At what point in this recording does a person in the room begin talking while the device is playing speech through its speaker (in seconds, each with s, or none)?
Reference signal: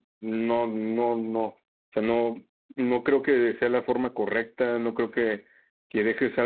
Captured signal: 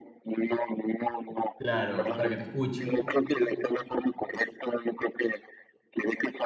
1.6 s